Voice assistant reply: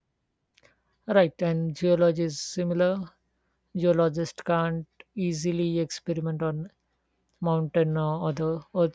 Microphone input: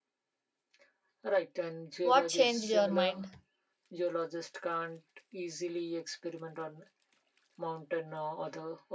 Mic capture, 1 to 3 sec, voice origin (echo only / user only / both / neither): both